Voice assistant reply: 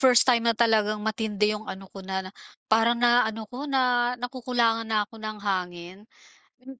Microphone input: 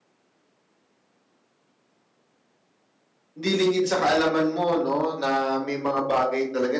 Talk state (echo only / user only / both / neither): user only